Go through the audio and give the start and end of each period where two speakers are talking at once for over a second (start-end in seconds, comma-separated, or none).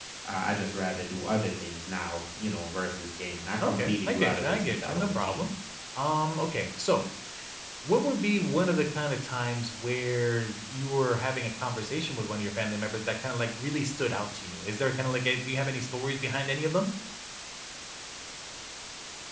3.7-5.5